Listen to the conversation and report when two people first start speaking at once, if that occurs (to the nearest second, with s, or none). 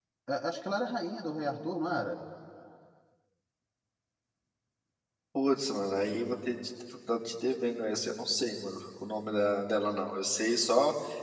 none